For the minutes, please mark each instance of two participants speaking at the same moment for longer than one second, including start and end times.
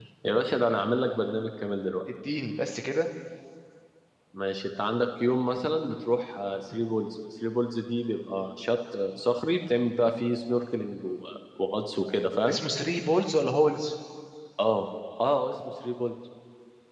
none

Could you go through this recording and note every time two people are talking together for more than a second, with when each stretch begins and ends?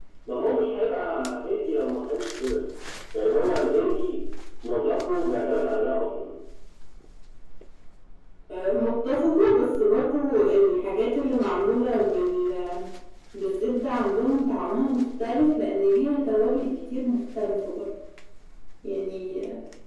none

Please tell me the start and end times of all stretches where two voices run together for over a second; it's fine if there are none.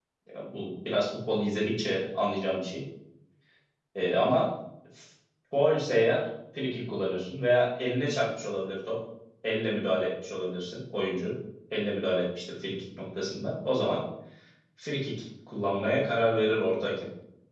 none

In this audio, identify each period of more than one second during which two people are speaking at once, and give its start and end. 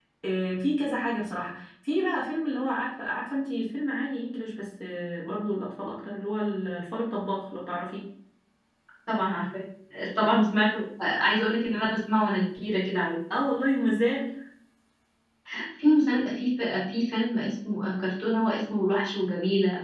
none

